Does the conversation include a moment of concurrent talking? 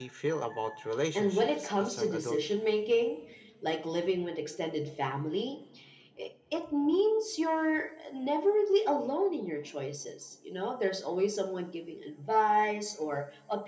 Yes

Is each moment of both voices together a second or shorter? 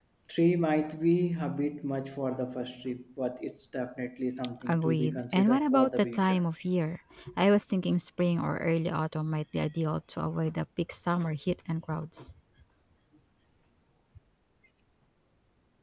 No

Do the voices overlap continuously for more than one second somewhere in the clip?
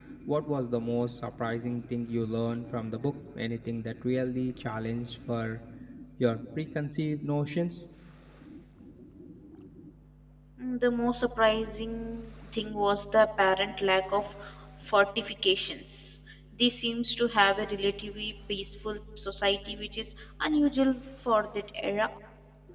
No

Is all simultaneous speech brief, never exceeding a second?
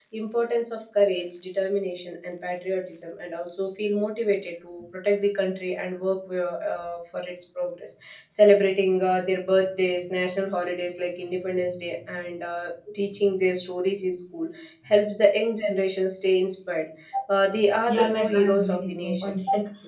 No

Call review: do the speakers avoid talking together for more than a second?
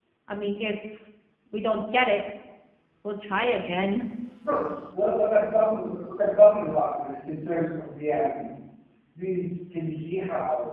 Yes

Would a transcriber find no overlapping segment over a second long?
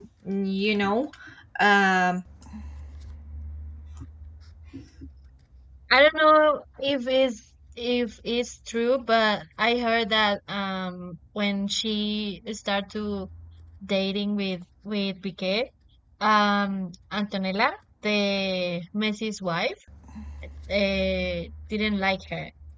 Yes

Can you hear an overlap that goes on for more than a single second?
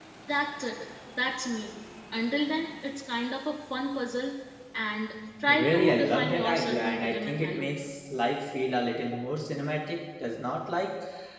Yes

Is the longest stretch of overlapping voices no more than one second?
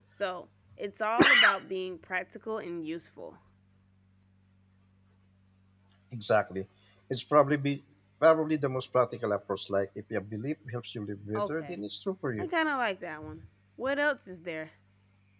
Yes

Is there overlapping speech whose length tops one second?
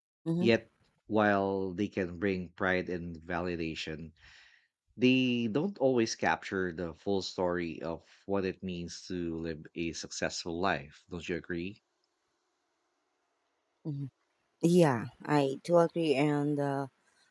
No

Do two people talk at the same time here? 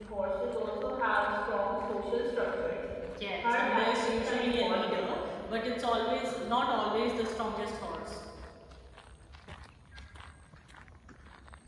Yes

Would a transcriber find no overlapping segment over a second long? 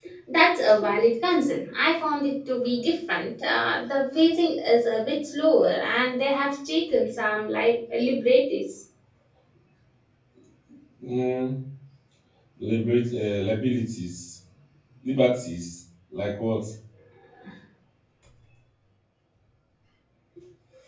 Yes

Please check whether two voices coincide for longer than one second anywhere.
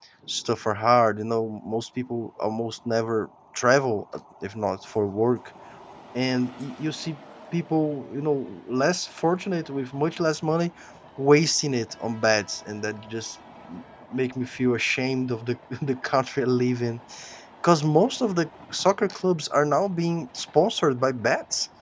No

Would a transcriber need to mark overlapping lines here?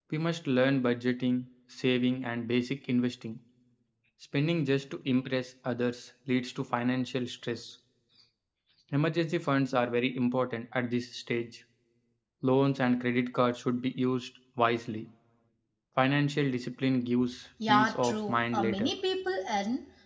Yes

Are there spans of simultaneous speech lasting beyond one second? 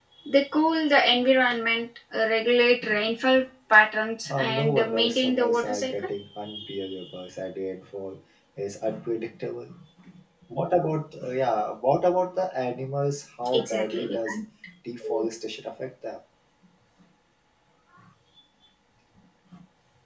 Yes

